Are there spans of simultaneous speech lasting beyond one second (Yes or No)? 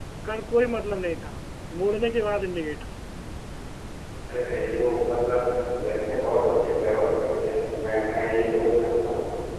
No